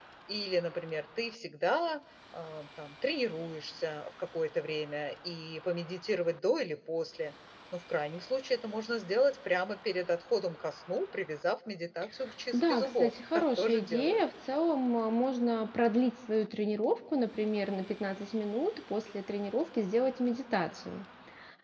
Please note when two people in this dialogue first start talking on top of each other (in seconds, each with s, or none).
12.5 s